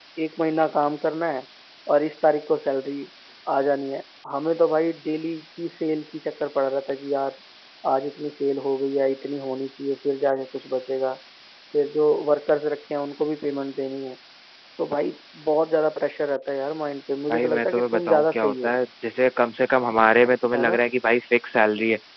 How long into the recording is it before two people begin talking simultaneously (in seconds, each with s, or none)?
17.3 s